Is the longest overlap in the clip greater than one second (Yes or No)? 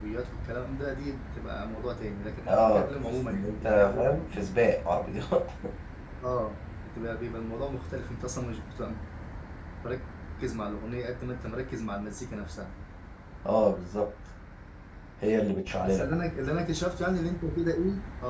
Yes